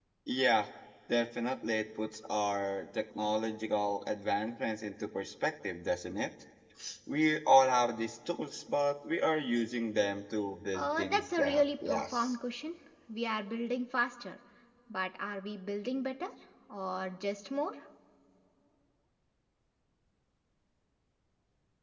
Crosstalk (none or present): present